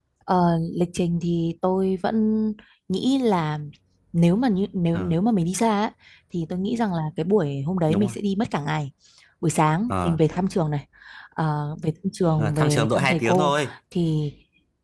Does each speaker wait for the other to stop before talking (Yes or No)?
No